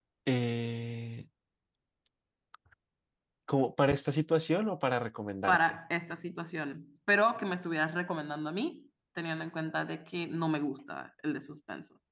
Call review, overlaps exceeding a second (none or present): none